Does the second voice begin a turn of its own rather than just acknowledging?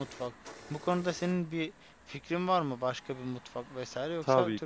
Yes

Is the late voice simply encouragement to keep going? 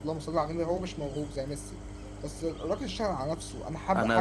No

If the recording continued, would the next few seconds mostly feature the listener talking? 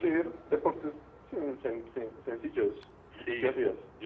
Yes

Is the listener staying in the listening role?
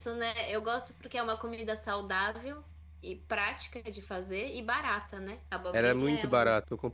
No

